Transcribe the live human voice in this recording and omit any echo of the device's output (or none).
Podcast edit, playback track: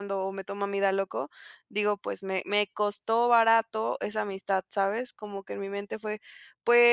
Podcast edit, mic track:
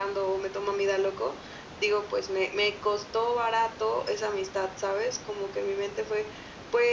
none